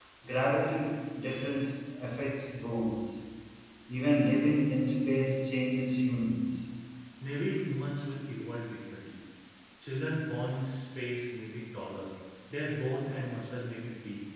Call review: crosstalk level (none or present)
none